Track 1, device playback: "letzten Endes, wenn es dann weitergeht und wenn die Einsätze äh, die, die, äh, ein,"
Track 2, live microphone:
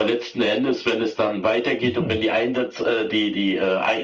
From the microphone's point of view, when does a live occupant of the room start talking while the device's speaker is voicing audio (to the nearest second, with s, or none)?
2 s